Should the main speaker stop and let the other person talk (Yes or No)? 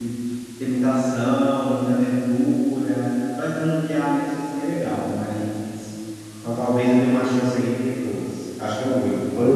No